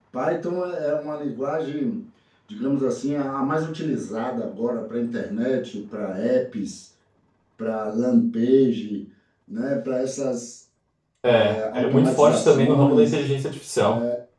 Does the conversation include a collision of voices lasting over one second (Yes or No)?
Yes